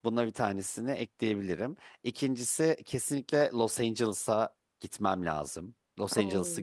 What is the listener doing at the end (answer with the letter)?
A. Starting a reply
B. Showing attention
A